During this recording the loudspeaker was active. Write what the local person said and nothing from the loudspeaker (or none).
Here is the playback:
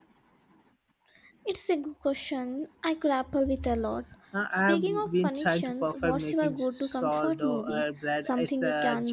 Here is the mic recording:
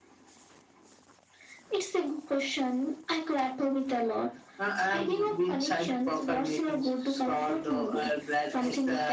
none